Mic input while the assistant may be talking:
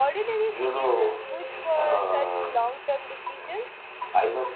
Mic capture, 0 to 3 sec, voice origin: both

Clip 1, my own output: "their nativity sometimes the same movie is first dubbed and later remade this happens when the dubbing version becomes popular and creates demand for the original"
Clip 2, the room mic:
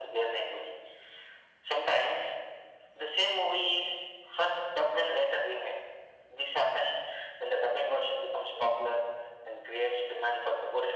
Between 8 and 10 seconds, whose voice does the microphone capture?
echo only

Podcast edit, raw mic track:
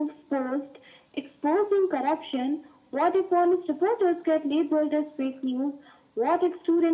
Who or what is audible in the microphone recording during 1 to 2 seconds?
echo only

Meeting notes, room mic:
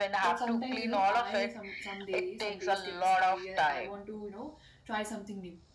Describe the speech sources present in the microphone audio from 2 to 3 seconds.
both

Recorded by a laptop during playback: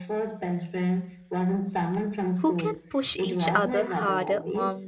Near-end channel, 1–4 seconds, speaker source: both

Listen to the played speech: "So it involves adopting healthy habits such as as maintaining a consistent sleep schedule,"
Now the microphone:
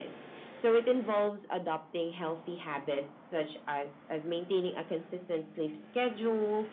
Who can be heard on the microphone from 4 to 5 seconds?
echo only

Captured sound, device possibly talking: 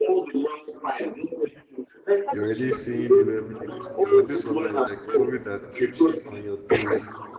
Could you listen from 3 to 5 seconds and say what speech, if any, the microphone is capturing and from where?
both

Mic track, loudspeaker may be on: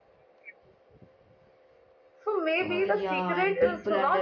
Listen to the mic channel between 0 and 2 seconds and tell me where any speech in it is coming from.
neither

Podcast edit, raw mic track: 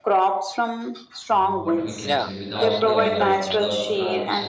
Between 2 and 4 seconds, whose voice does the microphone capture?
both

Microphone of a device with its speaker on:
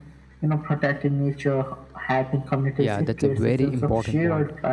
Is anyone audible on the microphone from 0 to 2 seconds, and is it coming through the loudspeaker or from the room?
echo only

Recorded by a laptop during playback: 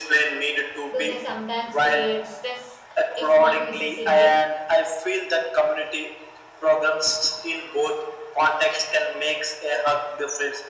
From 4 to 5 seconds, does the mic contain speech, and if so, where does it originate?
both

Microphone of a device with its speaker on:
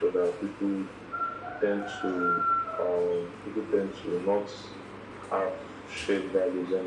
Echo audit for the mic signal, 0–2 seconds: echo only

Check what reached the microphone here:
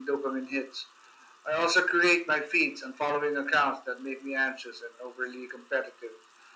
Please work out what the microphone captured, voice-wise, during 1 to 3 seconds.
echo only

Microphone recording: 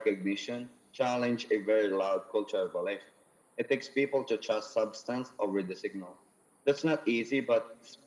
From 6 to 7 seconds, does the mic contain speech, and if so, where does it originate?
echo only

